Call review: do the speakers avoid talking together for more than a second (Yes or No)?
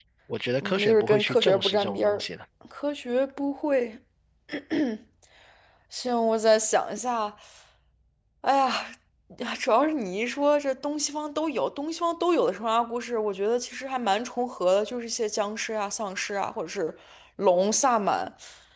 No